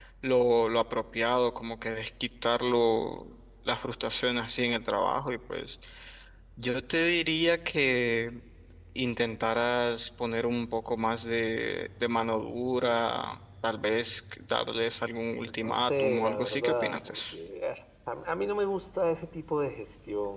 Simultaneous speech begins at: 15.6 s

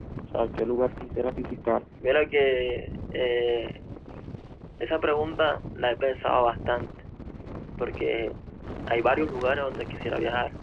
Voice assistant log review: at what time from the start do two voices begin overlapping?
none

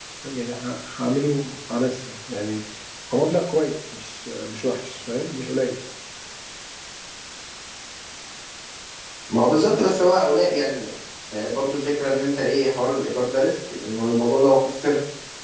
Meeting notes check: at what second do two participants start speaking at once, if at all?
none

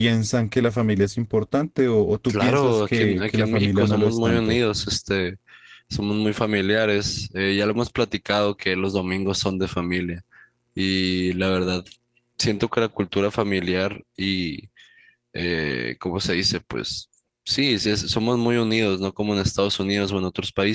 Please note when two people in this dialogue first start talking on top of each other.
2.2 s

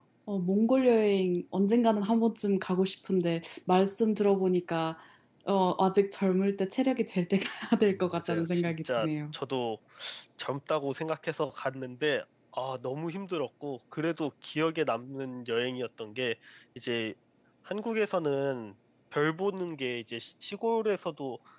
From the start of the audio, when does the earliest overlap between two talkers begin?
7.9 s

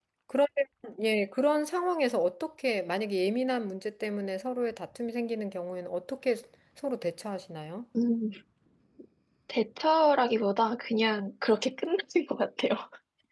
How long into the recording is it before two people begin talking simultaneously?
none

